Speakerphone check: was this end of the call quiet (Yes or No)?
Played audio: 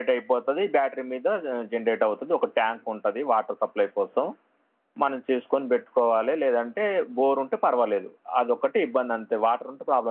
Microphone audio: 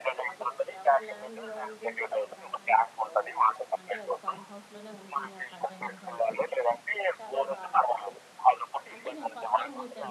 No